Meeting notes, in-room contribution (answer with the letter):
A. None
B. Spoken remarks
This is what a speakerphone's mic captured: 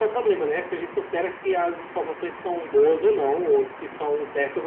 A